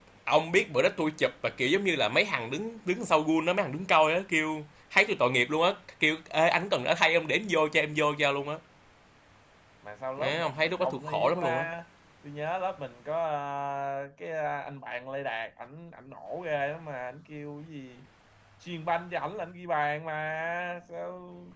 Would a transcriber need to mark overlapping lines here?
Yes, from 10.2 s

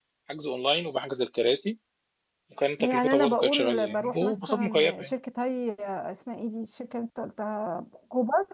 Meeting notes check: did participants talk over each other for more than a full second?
Yes, from 2.8 s

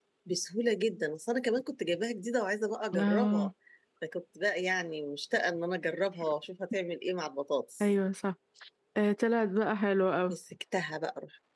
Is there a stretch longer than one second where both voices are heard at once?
No

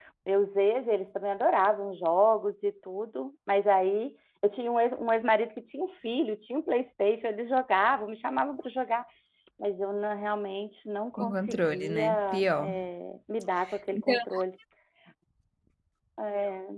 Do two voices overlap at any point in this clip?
Yes, from 11.2 s

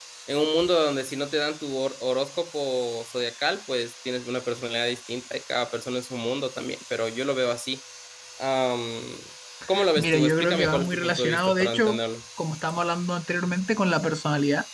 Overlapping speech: Yes, from 9.9 s

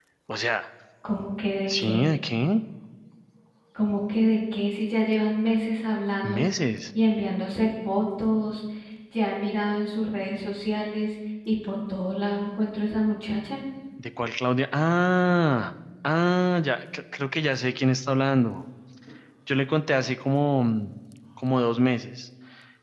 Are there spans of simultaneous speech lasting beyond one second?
No

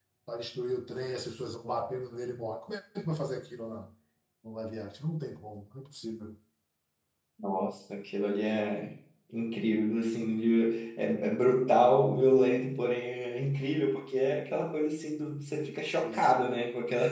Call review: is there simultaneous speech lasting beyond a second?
No

